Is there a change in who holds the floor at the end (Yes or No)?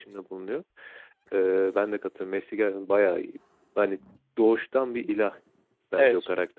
No